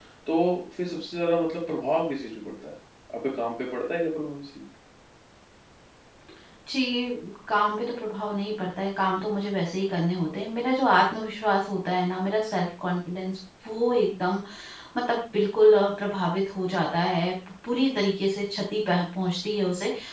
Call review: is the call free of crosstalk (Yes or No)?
Yes